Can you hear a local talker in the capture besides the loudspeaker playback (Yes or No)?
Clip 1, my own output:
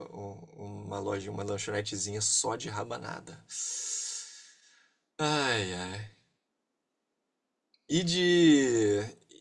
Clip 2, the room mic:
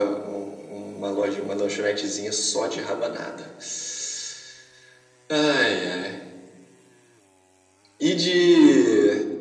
No